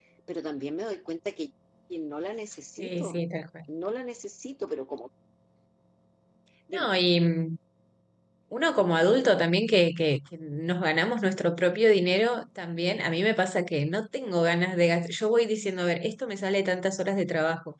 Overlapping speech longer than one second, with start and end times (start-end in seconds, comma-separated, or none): none